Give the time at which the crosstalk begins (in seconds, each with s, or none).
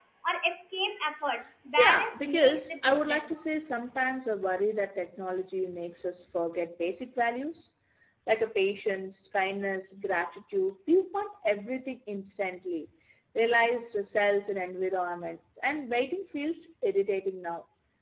1.8 s